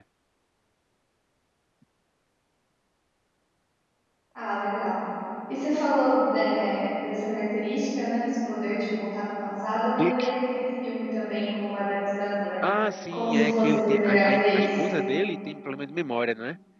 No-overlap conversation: No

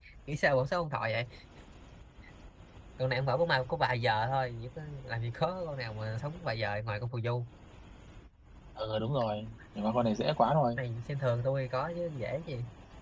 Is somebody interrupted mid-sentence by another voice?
No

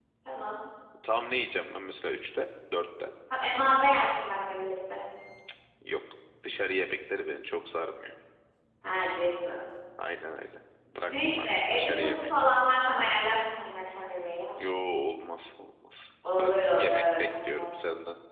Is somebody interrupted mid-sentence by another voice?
Yes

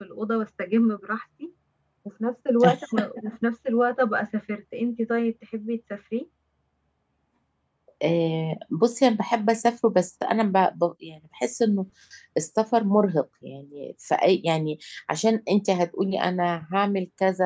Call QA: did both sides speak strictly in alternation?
Yes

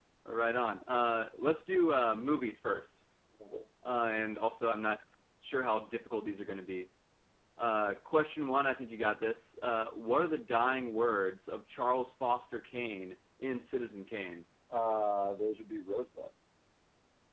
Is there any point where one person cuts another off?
No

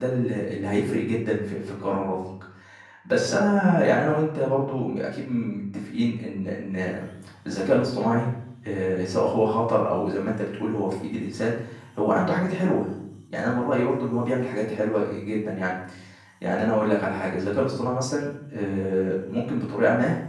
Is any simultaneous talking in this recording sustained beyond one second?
No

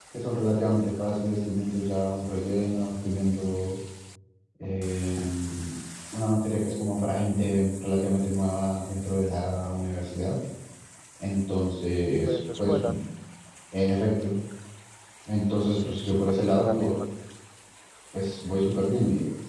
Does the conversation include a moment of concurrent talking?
Yes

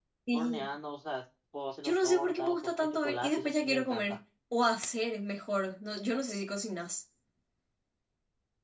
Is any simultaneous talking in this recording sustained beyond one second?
Yes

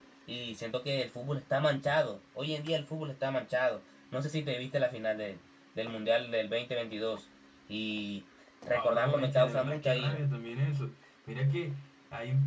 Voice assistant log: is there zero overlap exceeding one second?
No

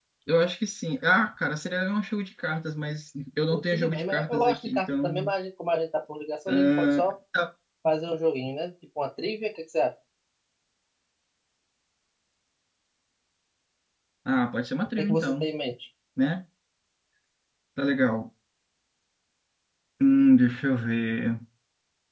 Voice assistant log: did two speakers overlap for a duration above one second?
Yes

